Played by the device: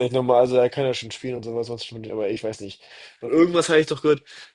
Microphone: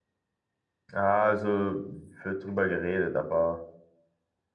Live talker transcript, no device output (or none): Ah, also wird drüber geredet, aber.